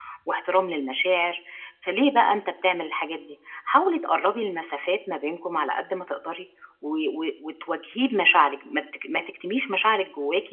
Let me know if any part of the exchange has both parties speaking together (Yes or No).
No